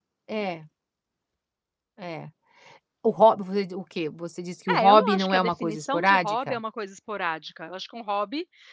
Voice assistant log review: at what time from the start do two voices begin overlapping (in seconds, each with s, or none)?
4.7 s